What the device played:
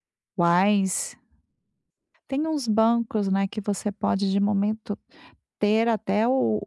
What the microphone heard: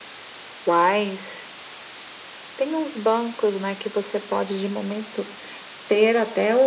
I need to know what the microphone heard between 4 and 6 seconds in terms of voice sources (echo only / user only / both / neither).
echo only